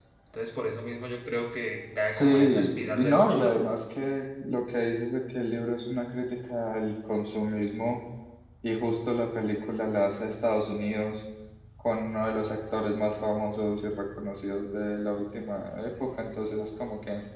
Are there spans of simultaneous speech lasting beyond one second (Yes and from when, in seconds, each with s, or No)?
Yes, from 2.1 s